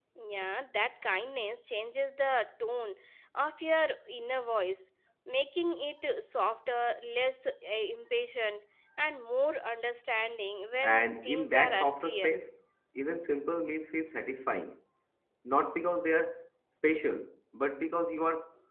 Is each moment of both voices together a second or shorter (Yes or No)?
No